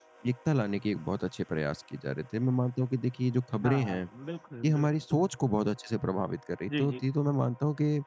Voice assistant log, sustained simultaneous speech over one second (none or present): none